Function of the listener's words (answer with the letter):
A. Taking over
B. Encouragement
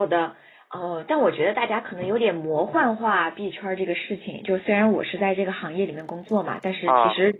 B